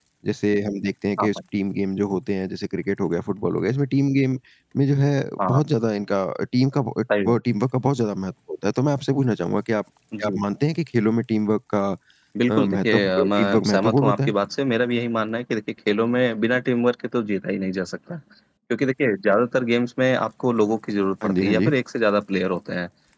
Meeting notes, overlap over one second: present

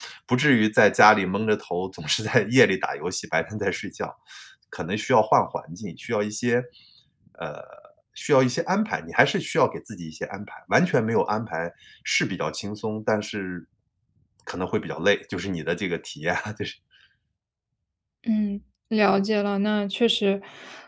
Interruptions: none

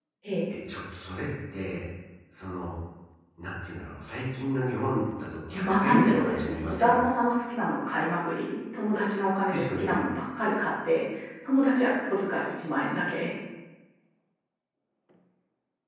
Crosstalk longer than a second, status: present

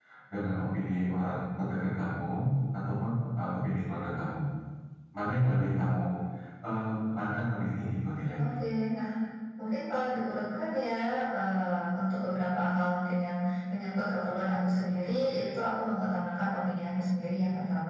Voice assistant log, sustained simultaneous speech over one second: none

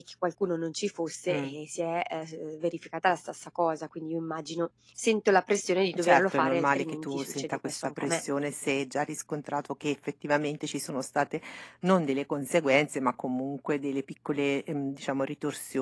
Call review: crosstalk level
present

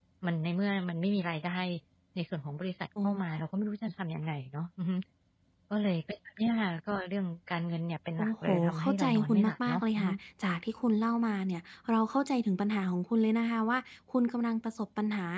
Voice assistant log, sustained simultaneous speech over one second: present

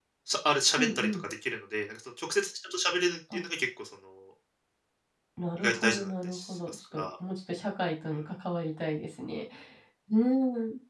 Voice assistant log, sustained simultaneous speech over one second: present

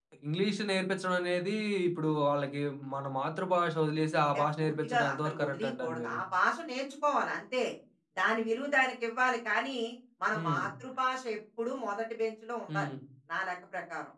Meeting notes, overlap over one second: present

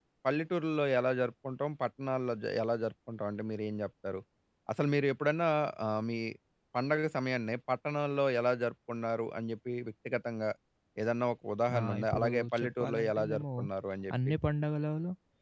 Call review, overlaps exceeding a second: present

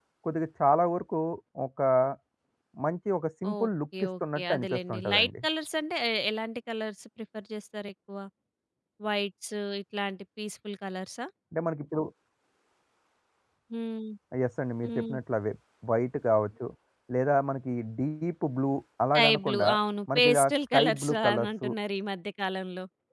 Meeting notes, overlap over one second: present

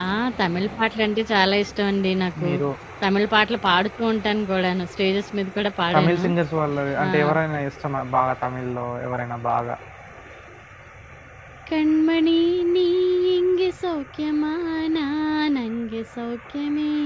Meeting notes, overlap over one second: none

